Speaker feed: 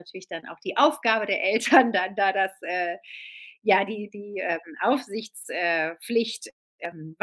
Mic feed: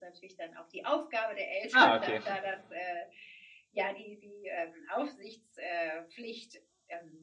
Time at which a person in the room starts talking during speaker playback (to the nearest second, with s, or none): 2 s